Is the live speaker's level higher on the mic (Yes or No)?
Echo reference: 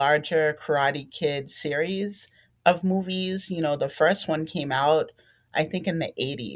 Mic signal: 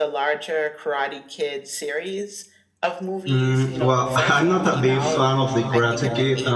Yes